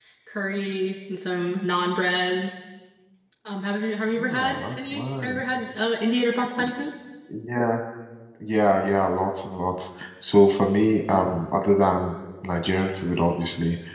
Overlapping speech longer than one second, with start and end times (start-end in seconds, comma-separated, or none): 4.2-5.4